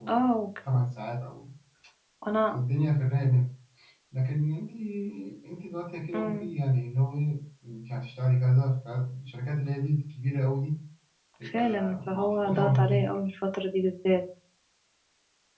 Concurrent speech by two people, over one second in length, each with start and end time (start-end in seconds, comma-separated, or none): 11.5-13.0